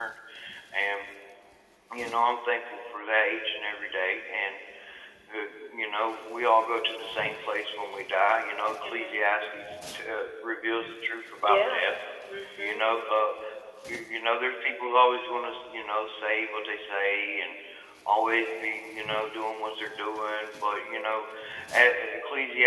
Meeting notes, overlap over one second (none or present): none